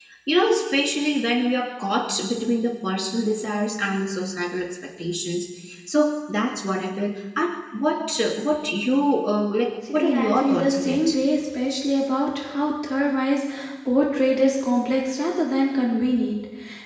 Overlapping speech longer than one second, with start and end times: 9.9-11.2

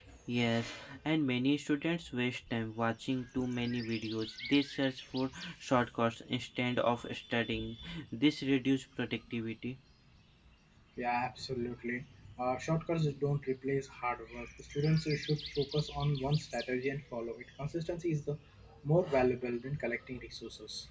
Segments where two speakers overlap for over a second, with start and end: none

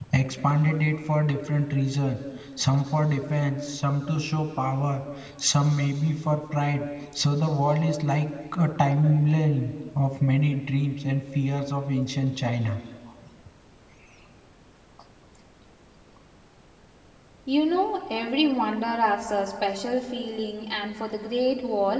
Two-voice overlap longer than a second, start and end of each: none

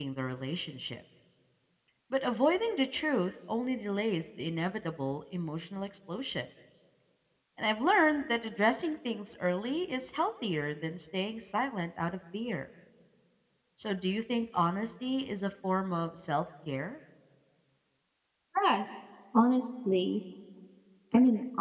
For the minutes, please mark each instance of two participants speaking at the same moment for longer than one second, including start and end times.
none

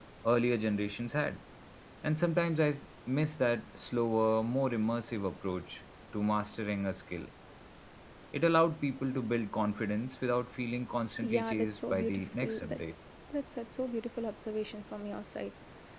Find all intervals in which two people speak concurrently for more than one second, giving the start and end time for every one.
11.3-12.8

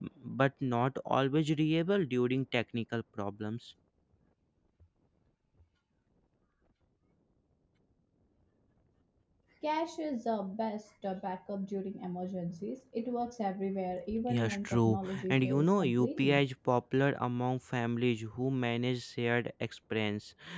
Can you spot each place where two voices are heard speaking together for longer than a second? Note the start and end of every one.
14.3-16.4

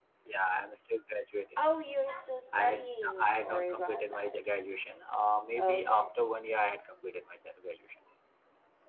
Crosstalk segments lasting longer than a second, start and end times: 2.5-4.3

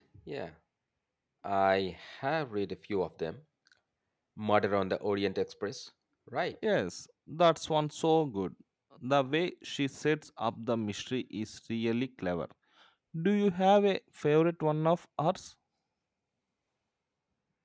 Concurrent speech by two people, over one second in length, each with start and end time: none

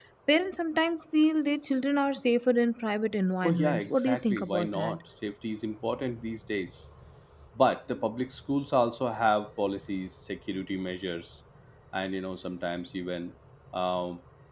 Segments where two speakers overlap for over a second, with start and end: 3.4-5.0

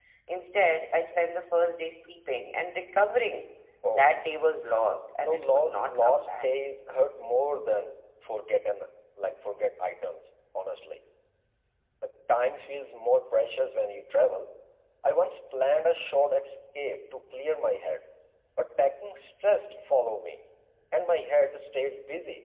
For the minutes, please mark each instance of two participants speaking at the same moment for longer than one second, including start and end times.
5.3-6.5

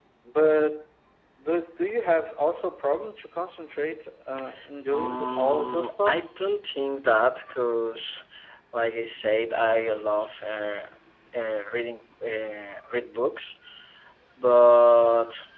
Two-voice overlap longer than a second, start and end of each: 4.9-6.3

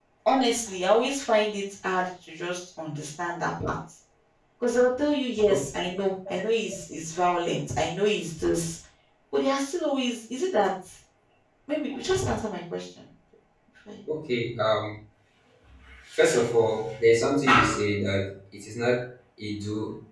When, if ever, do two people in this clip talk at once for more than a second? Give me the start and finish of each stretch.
none

